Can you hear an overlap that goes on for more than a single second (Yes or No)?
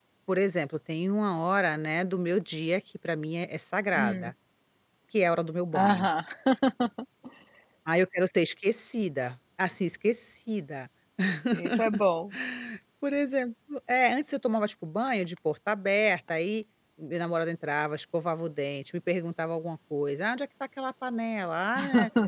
No